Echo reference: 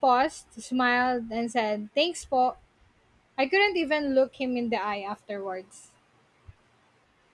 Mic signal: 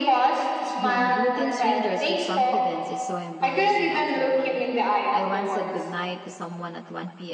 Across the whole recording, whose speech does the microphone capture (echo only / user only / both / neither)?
both